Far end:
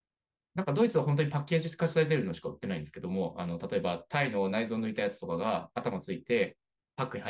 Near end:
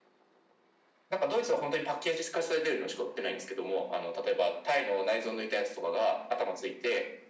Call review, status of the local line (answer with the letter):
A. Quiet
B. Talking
A